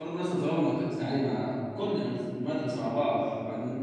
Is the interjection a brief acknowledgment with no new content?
Yes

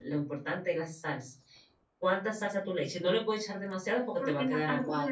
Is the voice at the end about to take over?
Yes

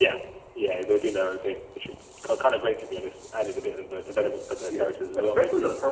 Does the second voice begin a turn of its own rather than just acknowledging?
Yes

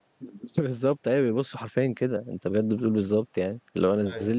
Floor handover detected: No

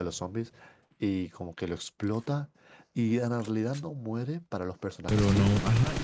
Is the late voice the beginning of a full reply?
Yes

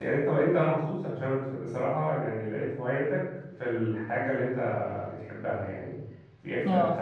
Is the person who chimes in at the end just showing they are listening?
Yes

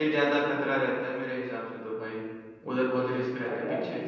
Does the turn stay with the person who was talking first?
No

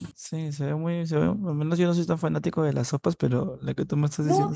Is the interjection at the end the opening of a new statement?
Yes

